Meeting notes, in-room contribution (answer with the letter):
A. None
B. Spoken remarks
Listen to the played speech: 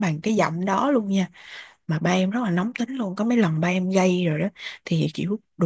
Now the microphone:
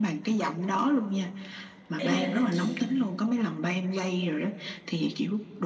B